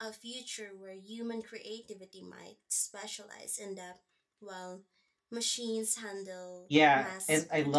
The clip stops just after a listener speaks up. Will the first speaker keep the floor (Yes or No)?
No